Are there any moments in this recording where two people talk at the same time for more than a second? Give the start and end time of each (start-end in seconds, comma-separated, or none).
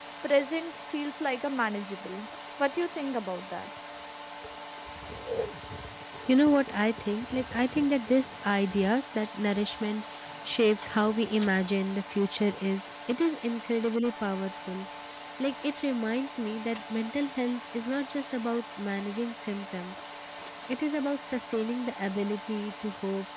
none